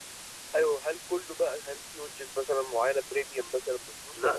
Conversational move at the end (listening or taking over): taking over